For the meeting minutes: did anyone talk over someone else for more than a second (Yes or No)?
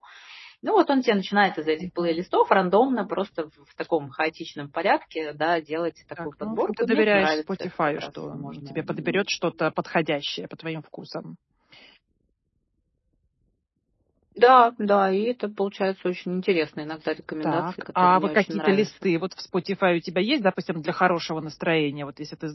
Yes